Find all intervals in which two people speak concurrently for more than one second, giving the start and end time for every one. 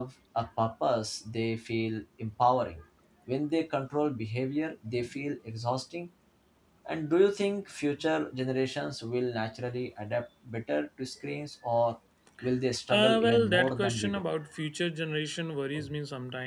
12.9-14.2

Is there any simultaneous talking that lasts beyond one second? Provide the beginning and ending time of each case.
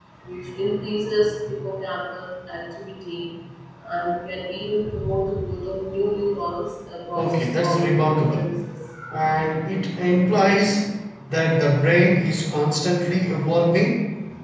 7.2-8.4

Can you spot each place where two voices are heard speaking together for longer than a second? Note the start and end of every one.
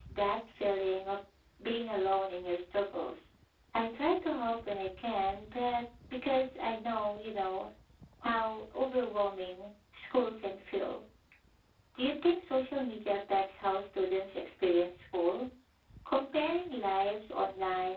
none

